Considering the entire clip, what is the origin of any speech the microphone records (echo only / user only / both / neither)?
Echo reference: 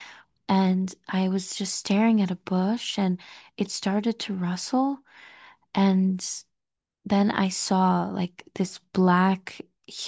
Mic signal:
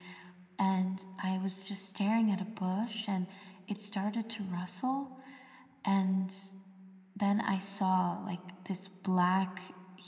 echo only